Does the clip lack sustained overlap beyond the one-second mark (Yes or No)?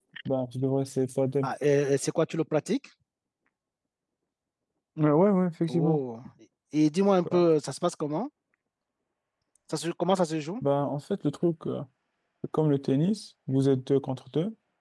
Yes